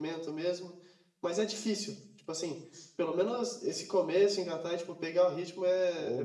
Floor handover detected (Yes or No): Yes